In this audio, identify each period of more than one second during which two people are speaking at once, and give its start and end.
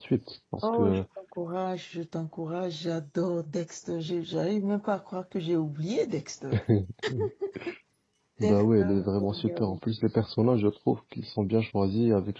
8.4-9.8

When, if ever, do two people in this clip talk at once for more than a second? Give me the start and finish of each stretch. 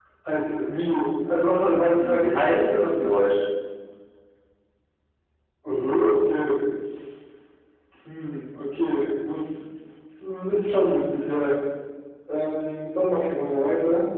1.7-3.2

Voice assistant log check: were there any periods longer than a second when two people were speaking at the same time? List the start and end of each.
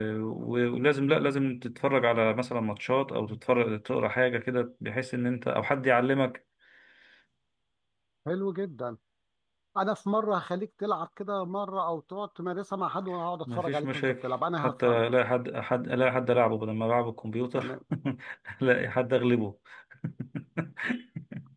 13.5-15.0

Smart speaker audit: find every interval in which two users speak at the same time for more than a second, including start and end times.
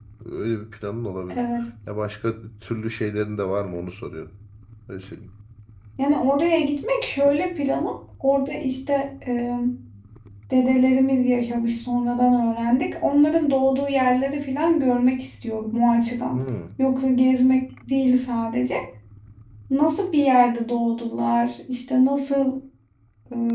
none

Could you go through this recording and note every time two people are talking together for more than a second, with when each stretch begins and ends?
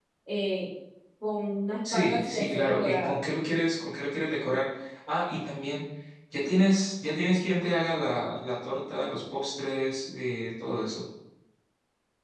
1.9-3.2

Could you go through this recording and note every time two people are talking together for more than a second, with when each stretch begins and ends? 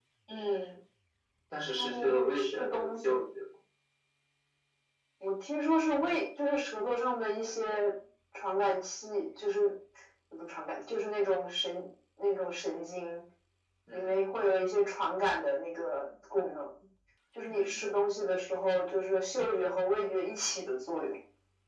1.8-3.1

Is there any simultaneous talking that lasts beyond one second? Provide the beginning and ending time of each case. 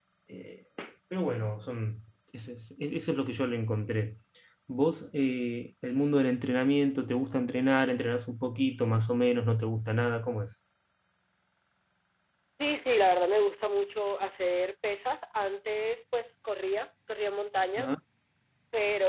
none

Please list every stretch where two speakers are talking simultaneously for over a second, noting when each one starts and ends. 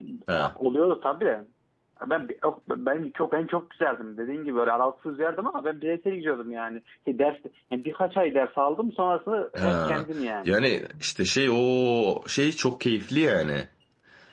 none

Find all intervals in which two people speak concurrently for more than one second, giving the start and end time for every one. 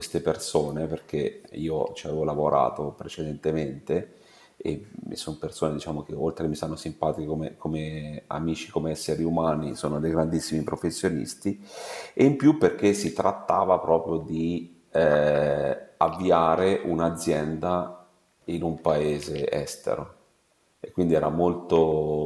none

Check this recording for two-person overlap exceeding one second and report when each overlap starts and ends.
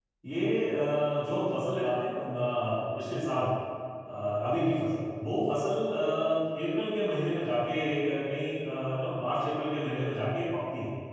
none

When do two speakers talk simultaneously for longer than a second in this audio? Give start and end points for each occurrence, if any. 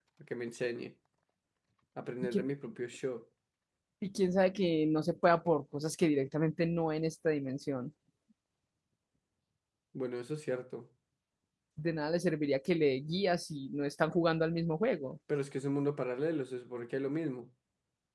none

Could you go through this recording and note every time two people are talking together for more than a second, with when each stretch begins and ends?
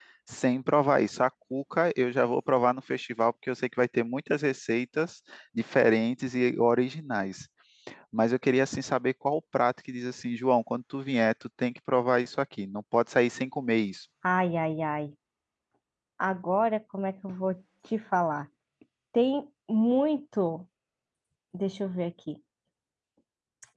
none

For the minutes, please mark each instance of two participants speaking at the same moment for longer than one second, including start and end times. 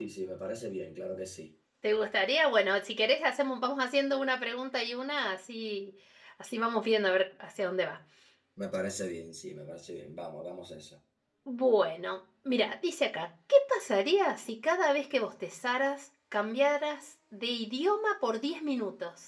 none

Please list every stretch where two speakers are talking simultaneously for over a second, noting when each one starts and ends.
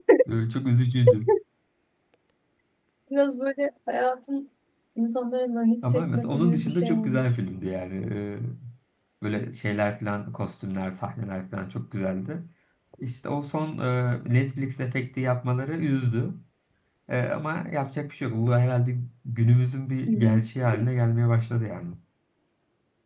5.9-7.2

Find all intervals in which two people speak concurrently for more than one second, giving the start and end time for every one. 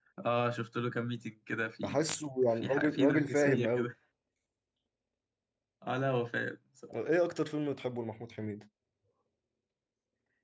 2.5-3.9

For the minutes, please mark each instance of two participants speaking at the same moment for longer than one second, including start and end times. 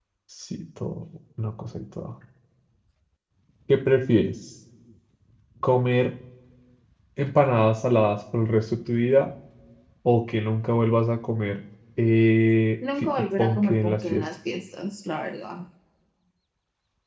13.0-14.3

